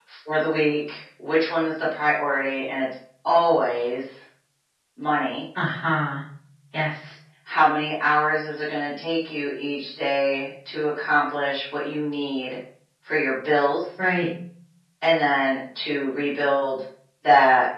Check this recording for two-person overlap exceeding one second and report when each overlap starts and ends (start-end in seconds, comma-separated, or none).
none